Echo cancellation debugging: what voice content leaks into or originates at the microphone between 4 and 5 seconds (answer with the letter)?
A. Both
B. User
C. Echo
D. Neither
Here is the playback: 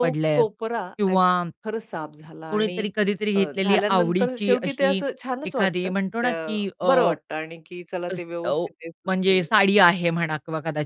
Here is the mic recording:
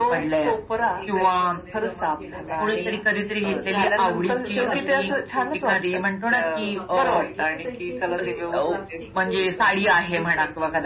A